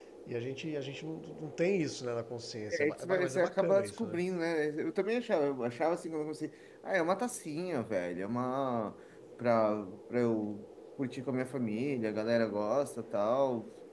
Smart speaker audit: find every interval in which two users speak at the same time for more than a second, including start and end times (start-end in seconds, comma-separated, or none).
2.7-4.2